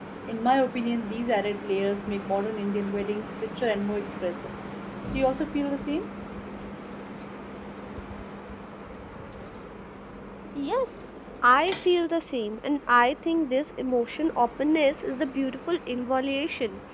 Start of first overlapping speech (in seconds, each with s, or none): none